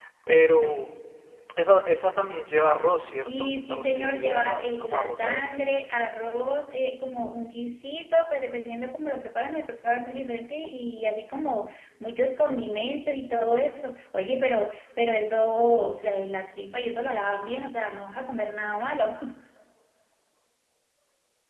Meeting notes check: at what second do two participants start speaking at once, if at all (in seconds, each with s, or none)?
3.3 s